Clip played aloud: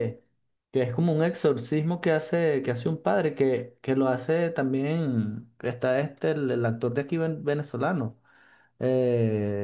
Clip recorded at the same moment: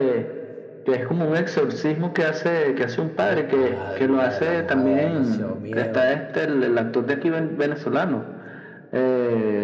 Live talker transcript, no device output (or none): Yo, ah, la de la mojada da demasiado miedo.